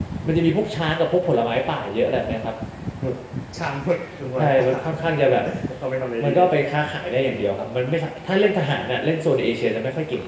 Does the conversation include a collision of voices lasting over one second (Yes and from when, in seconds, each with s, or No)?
No